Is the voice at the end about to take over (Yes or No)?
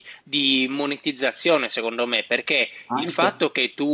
No